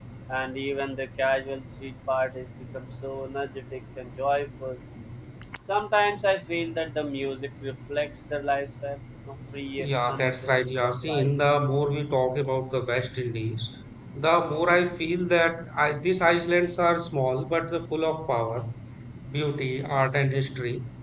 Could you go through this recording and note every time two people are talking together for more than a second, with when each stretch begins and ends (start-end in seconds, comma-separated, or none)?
9.9-11.3